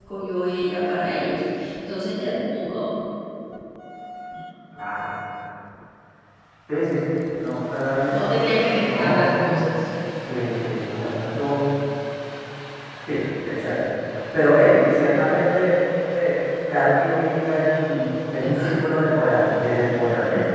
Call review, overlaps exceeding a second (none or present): present